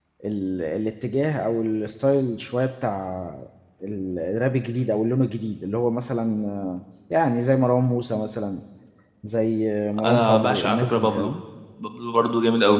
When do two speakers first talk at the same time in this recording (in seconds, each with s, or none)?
10.0 s